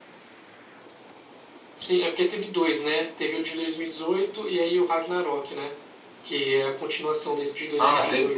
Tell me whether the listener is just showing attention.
No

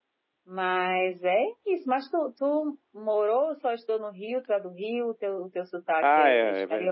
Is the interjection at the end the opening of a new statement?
Yes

